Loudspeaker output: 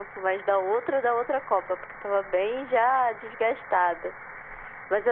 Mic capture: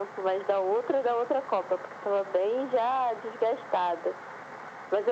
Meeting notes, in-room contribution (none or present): none